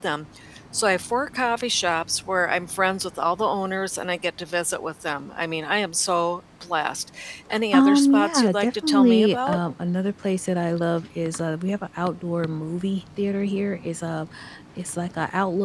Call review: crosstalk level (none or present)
present